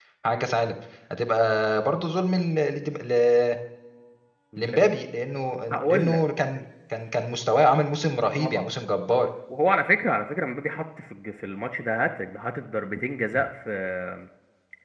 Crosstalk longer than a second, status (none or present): none